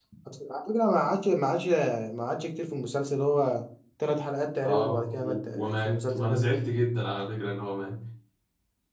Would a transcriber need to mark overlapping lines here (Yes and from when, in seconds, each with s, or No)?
Yes, from 4.6 s